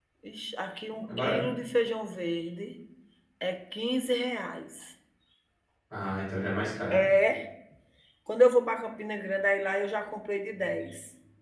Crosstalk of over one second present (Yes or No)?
No